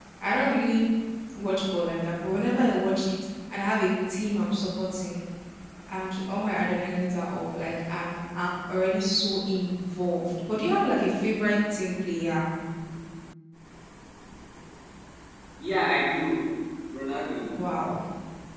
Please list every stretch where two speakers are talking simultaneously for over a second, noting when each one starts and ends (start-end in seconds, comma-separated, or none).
none